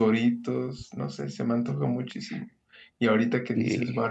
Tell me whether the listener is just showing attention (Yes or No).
Yes